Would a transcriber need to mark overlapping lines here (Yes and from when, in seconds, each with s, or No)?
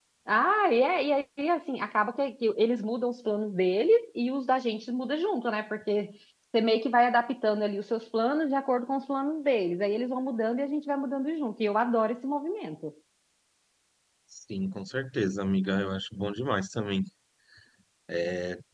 No